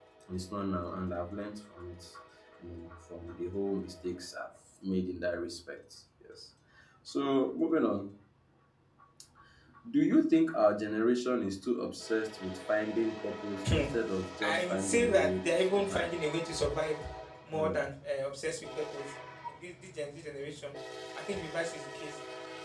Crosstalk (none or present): present